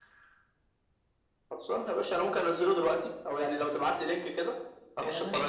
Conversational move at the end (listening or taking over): taking over